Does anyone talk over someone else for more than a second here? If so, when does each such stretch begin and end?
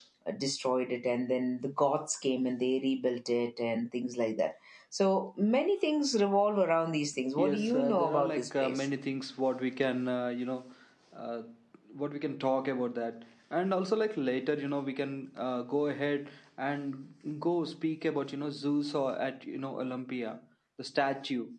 7.4-8.8

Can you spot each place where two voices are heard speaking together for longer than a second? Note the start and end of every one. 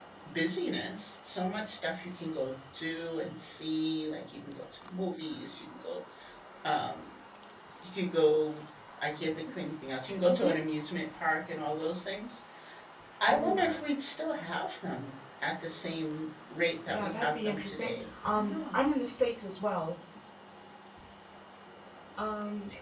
16.9-18.8

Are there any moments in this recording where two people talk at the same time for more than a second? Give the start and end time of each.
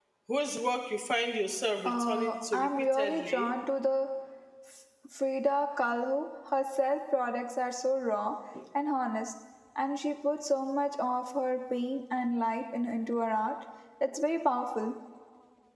1.9-3.5

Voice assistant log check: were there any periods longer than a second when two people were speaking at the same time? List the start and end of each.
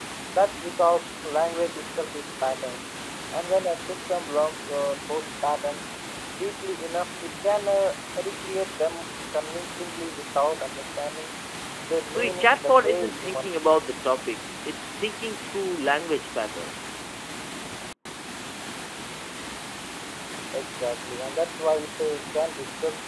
12.1-13.8

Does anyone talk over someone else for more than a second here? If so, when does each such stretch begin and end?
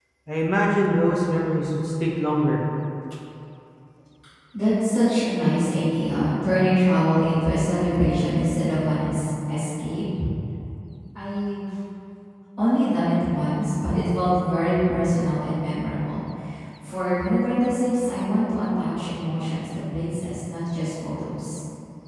none

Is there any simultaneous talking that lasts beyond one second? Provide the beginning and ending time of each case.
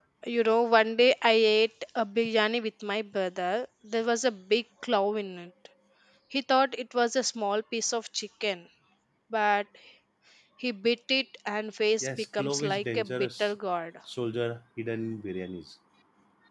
12.0-13.5

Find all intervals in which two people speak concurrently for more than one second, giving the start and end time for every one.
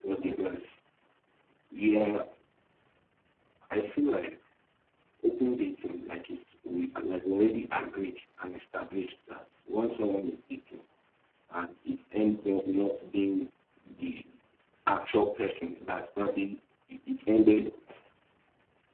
none

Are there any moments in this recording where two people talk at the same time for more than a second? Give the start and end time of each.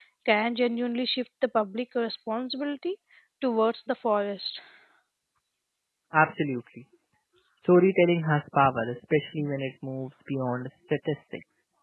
none

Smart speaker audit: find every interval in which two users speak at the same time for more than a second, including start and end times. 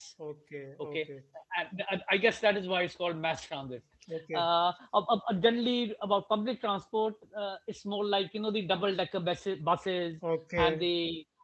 none

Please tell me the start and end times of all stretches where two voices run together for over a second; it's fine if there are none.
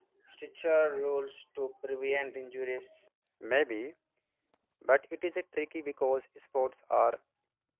none

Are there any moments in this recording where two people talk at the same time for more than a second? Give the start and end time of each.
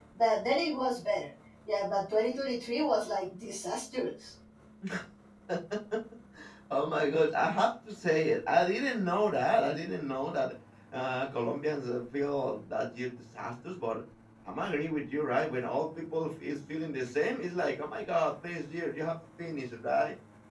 none

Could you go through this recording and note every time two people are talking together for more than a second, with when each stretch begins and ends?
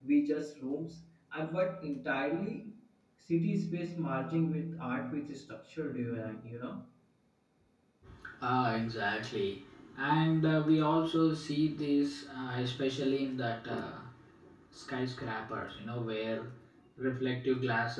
none

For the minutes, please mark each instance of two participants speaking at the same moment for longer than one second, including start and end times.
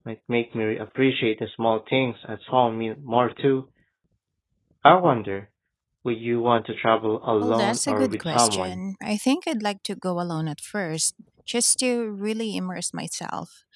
7.4-8.8

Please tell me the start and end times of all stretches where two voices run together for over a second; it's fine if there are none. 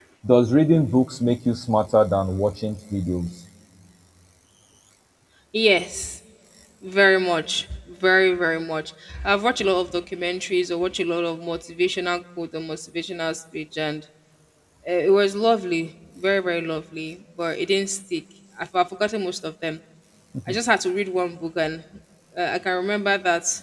none

